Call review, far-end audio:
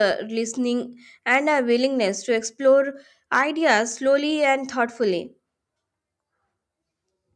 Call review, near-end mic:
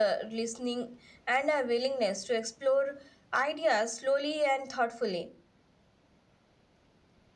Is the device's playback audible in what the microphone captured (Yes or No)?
Yes